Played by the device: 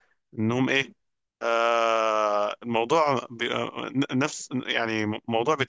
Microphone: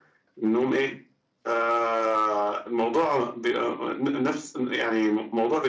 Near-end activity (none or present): none